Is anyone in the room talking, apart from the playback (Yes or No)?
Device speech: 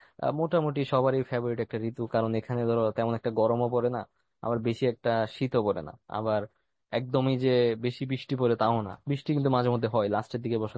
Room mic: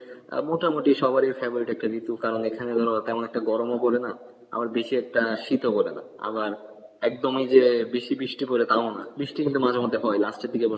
No